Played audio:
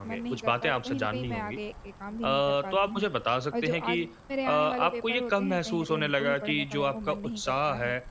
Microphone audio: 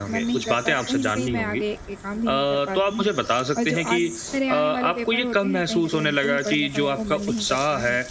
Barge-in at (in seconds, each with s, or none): none